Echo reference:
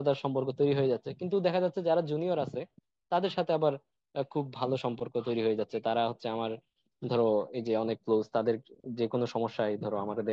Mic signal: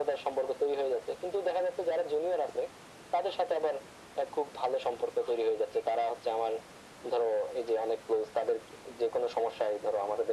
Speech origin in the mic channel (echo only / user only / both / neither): echo only